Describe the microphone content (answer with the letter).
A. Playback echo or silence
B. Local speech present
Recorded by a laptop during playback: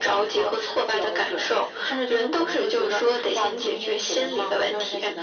A